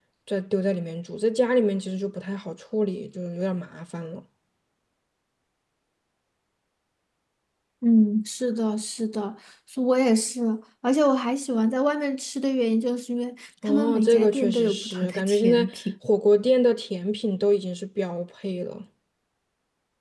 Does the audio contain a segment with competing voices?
Yes, from 13.6 s

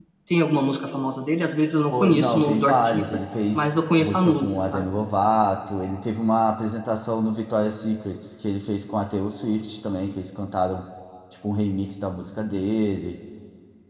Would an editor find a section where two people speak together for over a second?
Yes, from 1.9 s

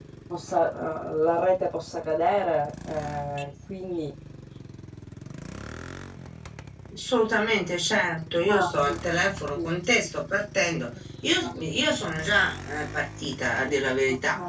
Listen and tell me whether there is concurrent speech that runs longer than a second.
No

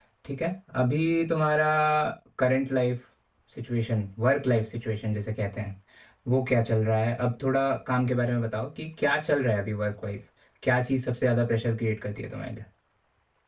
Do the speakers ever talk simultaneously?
No

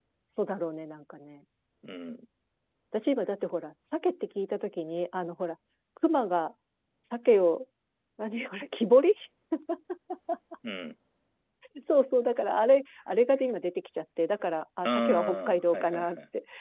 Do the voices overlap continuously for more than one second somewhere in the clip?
Yes, from 14.8 s

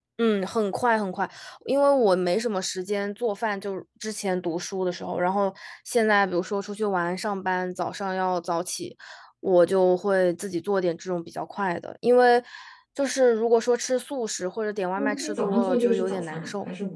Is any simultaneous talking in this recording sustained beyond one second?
Yes, from 15.0 s

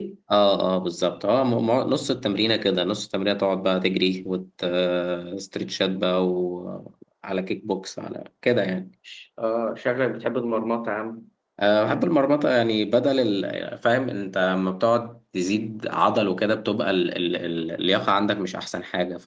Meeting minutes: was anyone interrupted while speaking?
No

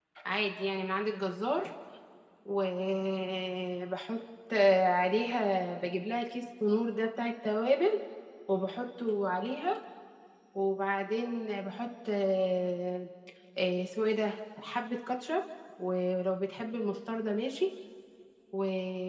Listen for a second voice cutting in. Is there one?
No

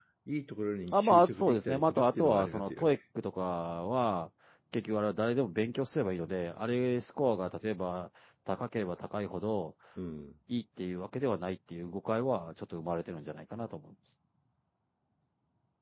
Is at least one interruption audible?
Yes, from 0.9 s

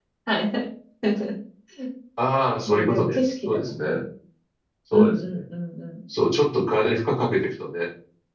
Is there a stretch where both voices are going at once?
Yes, from 2.6 s

